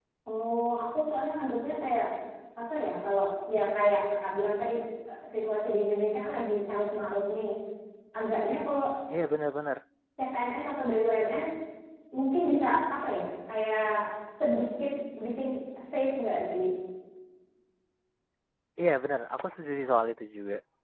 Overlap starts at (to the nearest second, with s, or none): none